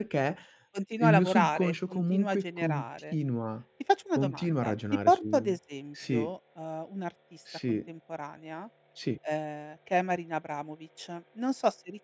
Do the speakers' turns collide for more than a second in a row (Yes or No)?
Yes